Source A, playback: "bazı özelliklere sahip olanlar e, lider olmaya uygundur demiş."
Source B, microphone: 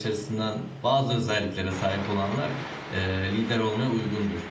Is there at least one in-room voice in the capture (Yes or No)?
No